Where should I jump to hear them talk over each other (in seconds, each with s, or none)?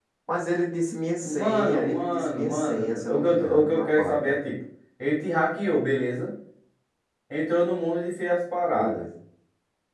1.2 s